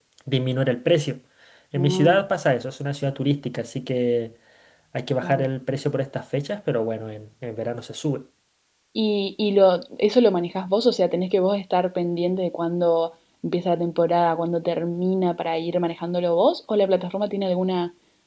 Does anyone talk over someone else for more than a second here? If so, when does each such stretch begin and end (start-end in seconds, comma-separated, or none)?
none